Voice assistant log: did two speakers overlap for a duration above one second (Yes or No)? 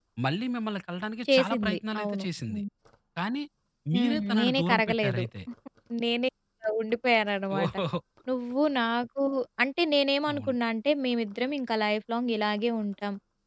Yes